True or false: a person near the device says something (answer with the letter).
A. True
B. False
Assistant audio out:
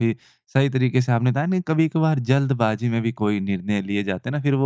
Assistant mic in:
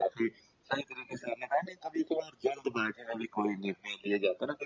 B